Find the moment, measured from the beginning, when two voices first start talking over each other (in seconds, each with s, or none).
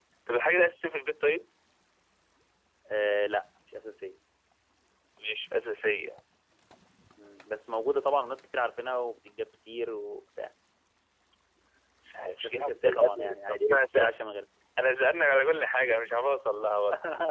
12.4 s